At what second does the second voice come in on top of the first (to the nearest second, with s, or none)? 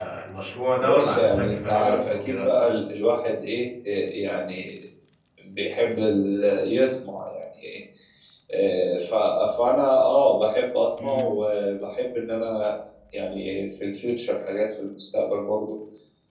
1 s